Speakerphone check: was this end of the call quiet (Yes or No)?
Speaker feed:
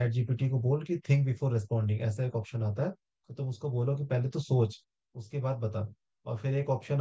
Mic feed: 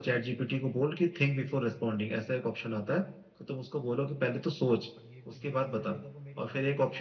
No